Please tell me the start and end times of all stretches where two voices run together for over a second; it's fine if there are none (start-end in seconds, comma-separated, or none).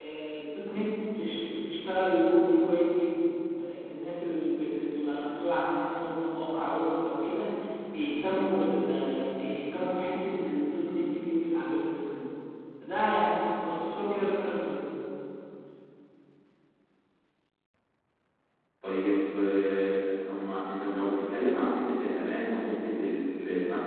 none